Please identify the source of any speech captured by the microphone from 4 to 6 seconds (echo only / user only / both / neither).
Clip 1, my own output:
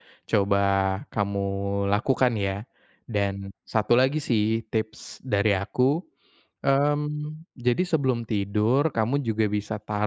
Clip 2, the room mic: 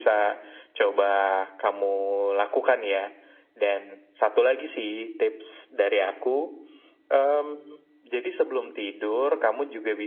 echo only